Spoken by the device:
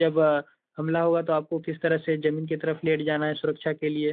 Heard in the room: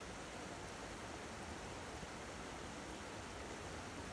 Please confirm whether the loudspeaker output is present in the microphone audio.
No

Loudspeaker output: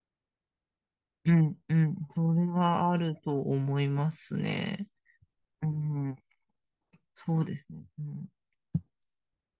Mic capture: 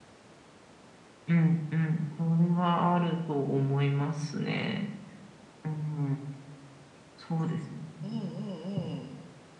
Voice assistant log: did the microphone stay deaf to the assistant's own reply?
No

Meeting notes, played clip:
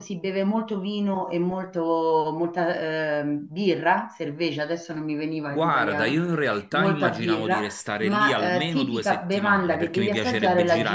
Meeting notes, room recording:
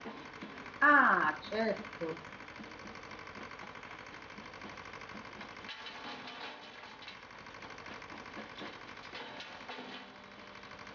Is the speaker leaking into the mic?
No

